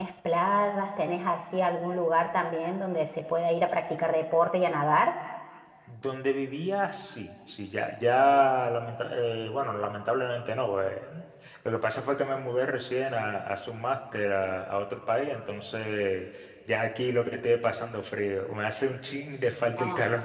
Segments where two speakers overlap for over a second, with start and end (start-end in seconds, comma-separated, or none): none